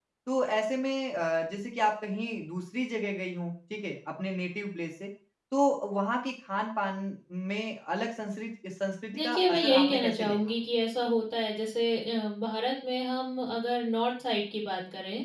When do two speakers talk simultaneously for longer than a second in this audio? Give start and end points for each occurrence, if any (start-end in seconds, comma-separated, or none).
9.2-10.4